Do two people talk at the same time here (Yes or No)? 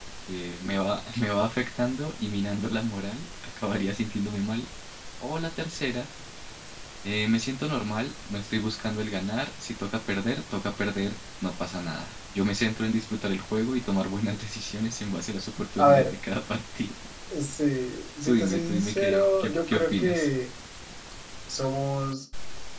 Yes